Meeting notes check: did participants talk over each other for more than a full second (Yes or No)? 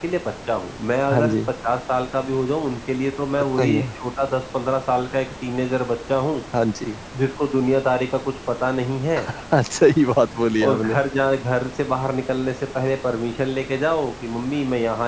No